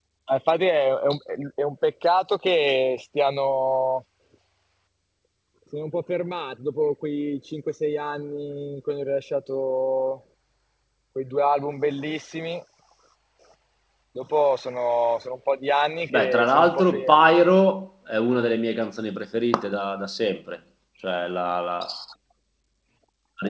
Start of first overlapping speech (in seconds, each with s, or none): 16.1 s